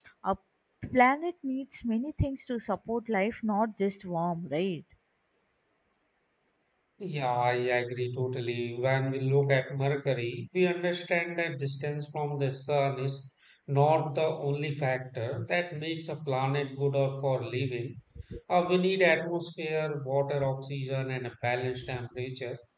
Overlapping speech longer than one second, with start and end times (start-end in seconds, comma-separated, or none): none